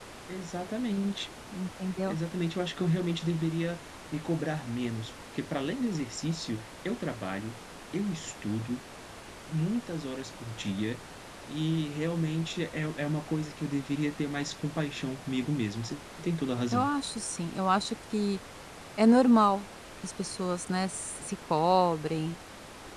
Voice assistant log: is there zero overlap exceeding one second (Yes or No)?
Yes